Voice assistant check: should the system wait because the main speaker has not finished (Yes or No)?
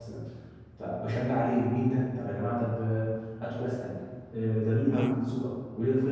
Yes